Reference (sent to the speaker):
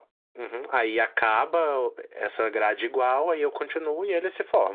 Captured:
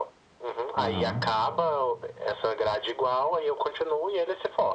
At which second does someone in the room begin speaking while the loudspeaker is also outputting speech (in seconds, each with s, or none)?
0.7 s